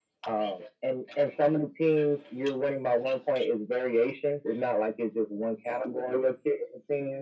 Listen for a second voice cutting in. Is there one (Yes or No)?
No